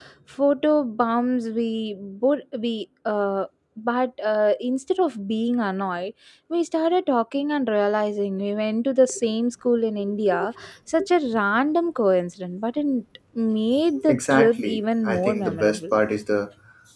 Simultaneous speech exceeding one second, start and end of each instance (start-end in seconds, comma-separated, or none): 14.1-15.8